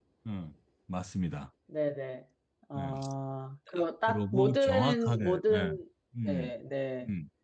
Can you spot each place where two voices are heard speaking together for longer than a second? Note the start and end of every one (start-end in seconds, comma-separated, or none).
4.1-5.7